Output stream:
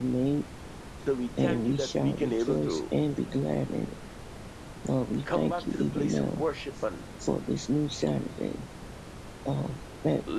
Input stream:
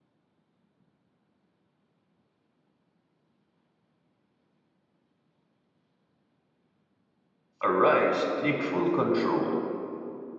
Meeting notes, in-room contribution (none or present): present